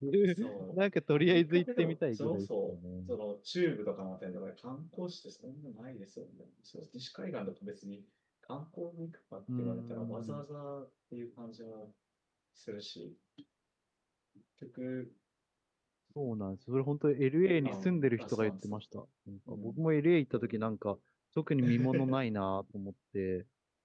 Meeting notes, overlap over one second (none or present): present